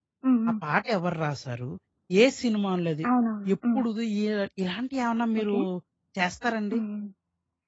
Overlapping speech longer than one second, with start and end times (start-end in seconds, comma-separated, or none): none